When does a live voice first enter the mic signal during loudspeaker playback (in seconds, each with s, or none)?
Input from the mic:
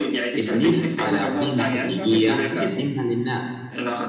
0.4 s